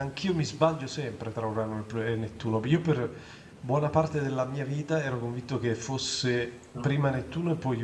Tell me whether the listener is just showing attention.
Yes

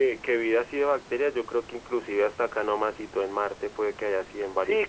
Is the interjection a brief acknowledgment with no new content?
No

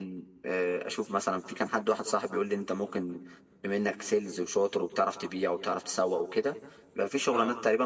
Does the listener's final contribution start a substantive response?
No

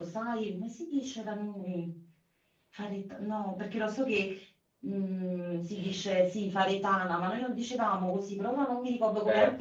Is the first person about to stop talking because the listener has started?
Yes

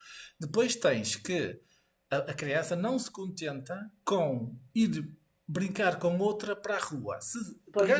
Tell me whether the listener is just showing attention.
Yes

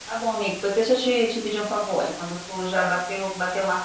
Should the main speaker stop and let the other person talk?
No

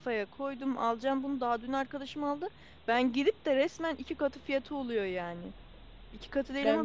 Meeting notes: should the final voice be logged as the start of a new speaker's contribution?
No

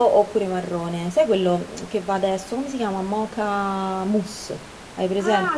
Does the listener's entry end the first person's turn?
Yes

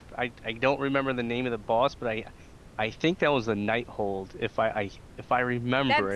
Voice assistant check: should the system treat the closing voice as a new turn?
Yes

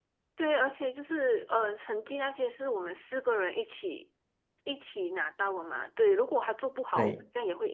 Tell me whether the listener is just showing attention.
Yes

